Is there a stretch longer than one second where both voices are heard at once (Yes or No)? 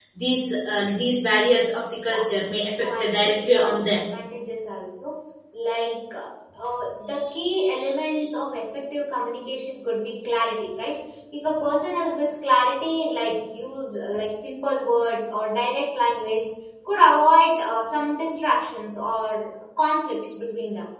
Yes